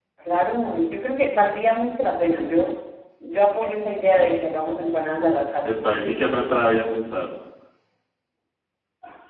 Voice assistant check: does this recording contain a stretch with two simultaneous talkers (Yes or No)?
No